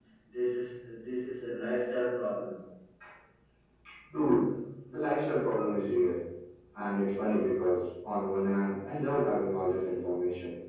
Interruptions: none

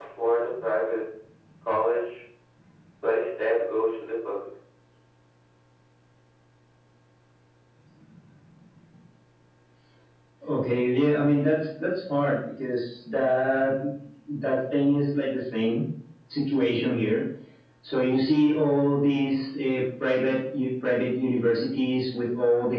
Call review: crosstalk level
none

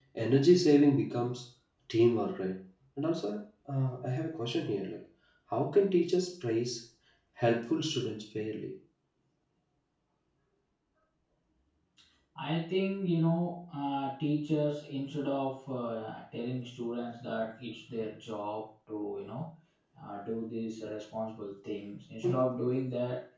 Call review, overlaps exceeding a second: none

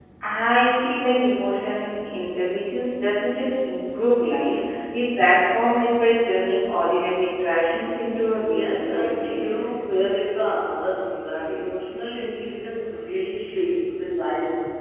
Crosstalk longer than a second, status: present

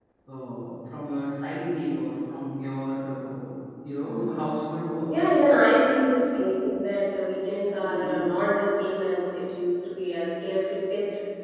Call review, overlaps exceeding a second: none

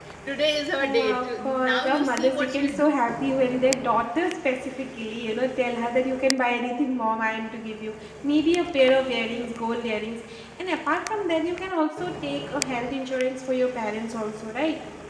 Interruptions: present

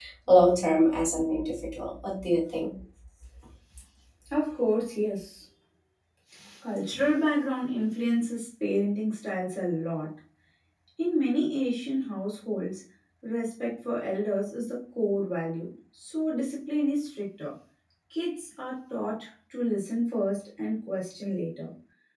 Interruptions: none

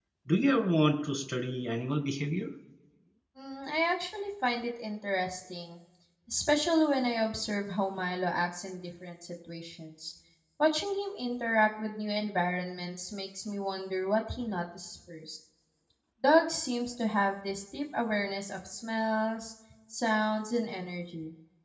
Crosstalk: none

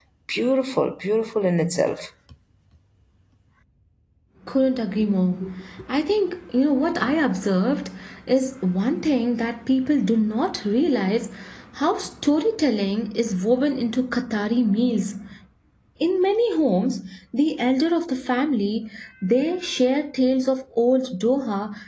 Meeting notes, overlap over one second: none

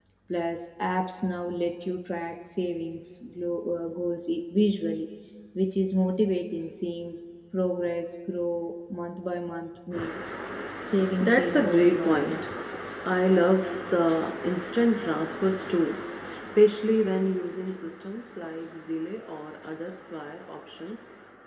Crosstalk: present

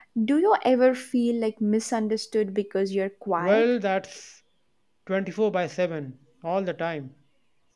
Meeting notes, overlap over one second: none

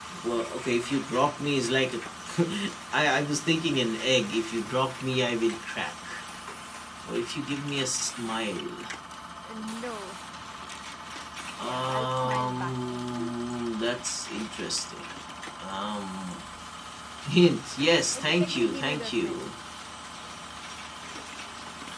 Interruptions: present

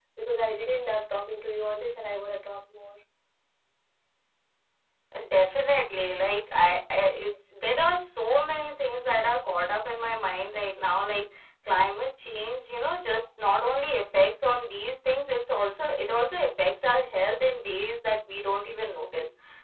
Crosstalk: none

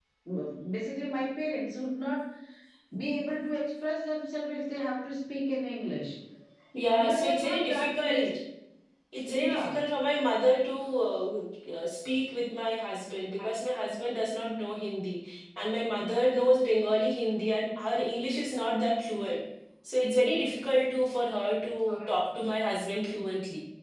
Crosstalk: present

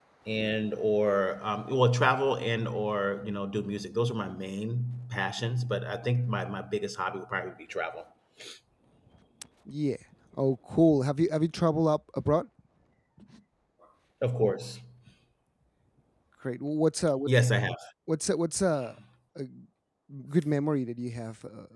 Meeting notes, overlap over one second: none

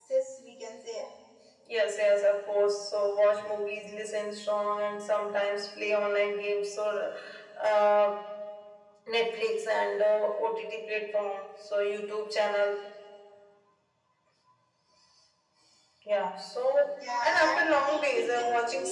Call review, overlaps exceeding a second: present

